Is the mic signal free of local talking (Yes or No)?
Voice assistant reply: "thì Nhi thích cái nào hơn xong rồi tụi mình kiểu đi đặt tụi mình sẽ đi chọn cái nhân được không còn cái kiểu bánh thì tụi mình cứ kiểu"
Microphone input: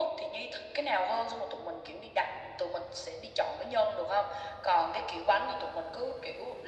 Yes